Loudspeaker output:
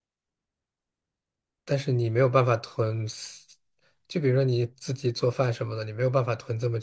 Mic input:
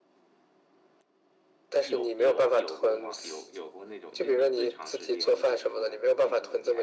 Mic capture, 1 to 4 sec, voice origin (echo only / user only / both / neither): both